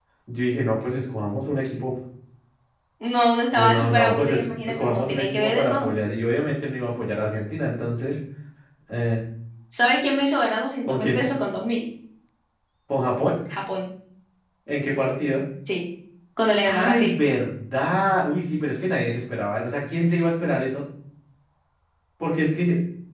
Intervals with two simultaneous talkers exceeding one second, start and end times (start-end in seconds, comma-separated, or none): 3.6-5.9